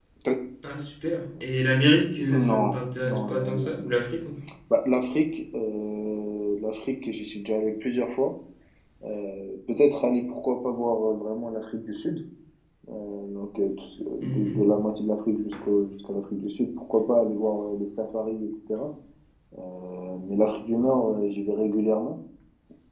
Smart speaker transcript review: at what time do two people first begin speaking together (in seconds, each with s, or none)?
2.5 s